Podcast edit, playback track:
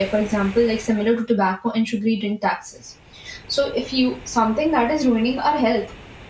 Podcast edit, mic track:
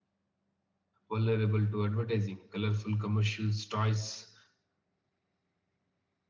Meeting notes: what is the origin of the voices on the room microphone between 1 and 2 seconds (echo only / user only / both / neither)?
user only